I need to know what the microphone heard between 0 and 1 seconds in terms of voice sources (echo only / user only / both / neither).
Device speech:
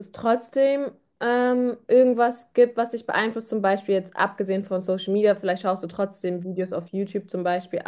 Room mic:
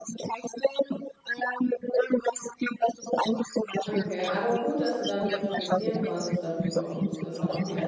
echo only